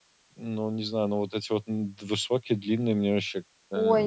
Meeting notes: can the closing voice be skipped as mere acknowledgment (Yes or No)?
No